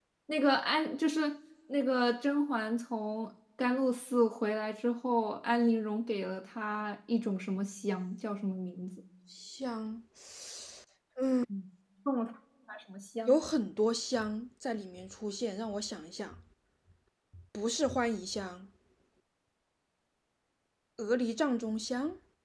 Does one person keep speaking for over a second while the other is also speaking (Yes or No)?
No